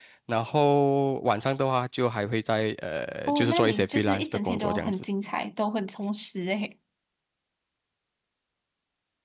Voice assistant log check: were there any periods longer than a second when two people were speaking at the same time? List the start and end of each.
3.3-4.9

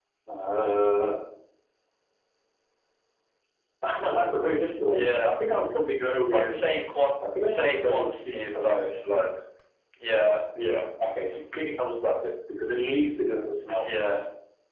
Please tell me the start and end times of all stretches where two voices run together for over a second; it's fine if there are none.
7.4-8.8

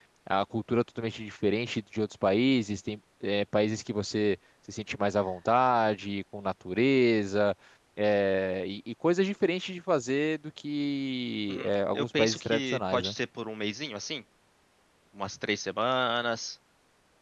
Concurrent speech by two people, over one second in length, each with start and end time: 11.5-13.1

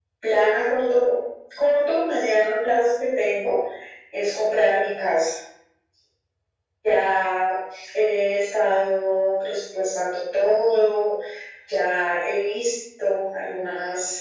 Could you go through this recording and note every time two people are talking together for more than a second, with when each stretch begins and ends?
none

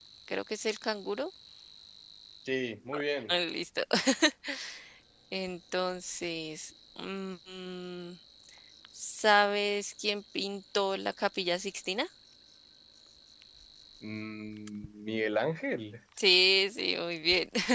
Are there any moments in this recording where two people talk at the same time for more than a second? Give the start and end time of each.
none

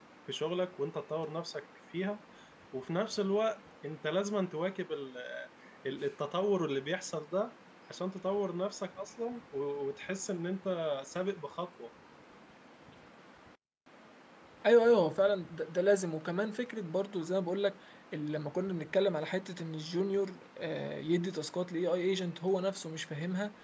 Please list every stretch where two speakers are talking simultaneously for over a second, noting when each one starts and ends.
none

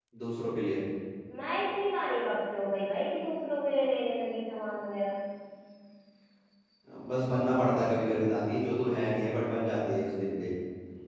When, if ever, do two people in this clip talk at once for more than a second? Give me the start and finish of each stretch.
none

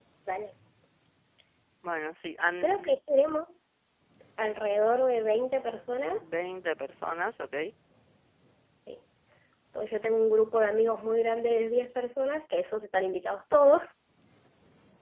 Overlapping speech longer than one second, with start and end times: none

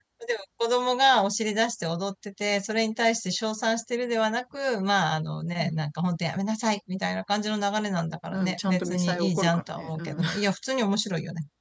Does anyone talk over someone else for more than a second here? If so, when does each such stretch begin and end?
8.3-10.2

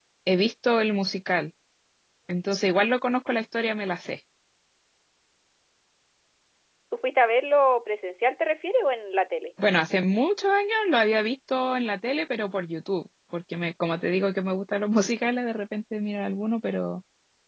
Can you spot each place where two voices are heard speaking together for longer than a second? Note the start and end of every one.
none

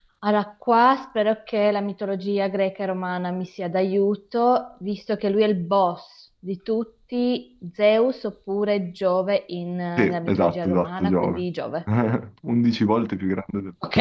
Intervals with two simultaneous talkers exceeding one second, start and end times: 10.0-11.4

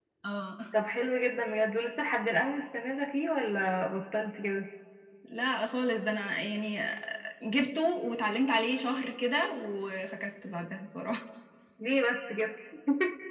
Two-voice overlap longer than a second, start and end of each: none

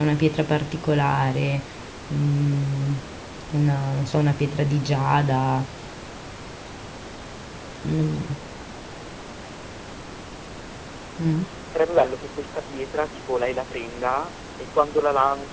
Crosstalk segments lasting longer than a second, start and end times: none

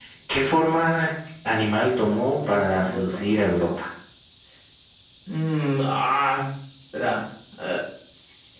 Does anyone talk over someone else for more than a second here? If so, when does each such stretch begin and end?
2.0-3.4

